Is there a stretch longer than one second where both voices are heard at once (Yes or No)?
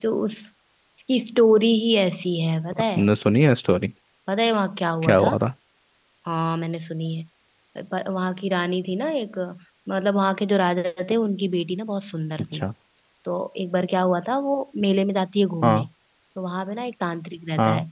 No